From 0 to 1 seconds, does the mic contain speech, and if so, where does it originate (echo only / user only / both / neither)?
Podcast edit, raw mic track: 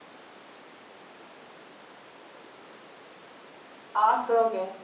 neither